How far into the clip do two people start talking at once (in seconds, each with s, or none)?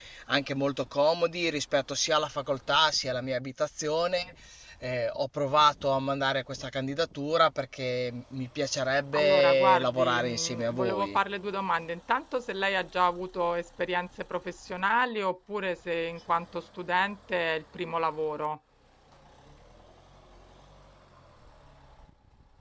9.1 s